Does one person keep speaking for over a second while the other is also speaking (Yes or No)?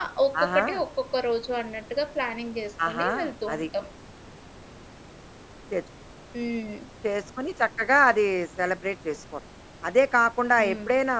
No